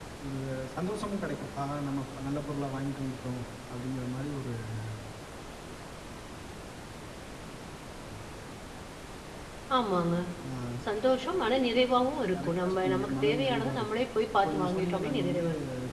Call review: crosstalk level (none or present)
present